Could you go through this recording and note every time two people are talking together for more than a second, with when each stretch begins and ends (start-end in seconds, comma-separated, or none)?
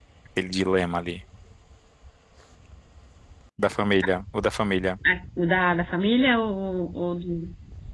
none